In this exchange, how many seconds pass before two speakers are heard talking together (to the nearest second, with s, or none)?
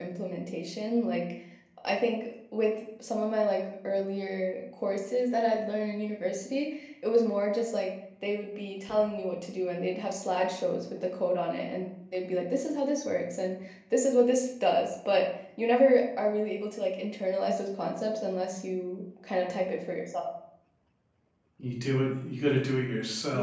none